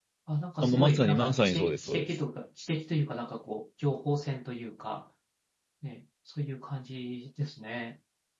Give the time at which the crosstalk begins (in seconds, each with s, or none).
0.6 s